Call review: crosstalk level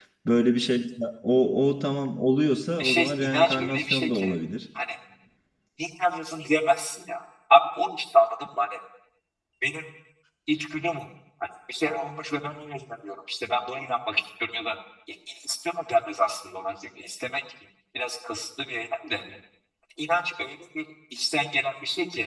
present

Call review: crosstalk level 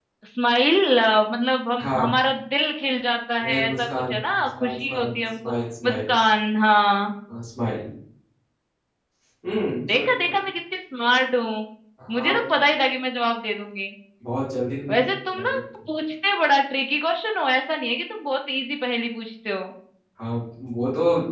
present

